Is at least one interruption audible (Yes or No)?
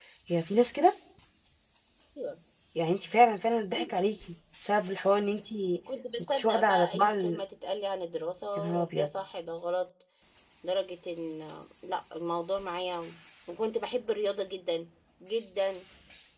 Yes